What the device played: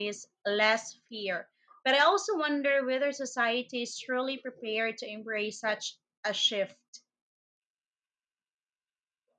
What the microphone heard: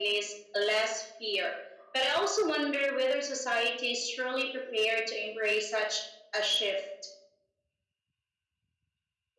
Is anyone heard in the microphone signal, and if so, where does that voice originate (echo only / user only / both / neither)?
echo only